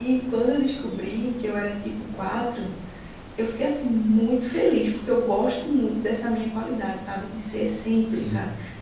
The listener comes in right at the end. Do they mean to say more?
No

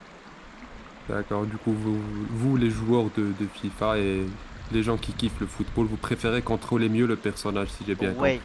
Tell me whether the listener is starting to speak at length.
Yes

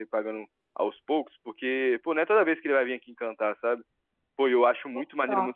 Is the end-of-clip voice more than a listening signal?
No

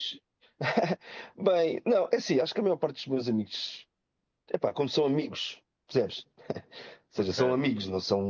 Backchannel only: Yes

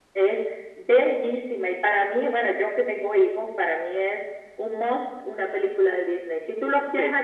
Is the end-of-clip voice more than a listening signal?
No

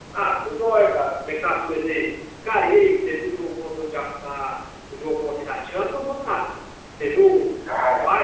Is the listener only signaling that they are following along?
No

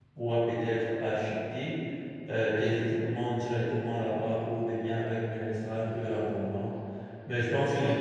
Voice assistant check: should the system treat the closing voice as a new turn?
No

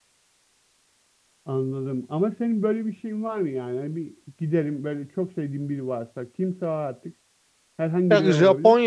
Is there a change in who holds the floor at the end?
Yes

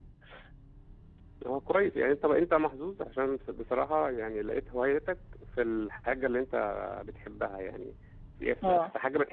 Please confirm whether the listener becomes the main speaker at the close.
No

